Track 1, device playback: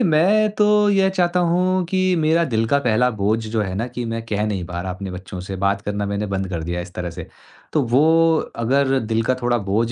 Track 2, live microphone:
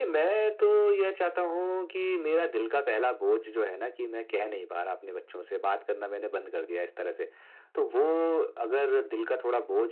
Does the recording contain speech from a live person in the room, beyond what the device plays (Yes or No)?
No